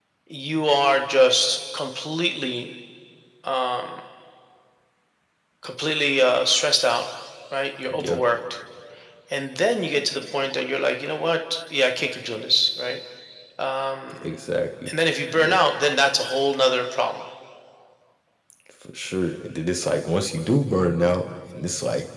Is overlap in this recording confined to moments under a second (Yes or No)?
Yes